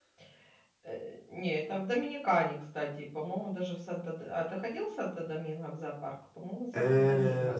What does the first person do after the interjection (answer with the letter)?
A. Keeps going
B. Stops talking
B